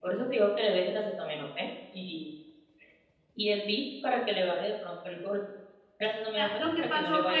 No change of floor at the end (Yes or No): No